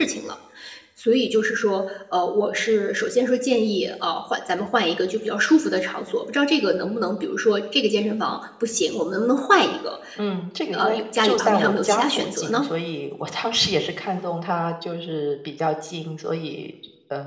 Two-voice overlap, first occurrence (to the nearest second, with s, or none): 11 s